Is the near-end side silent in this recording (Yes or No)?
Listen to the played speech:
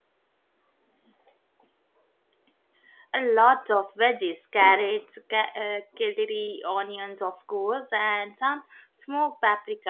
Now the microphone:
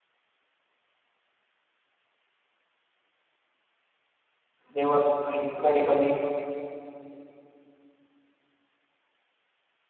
No